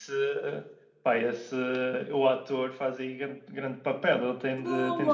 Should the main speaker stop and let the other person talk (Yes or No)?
No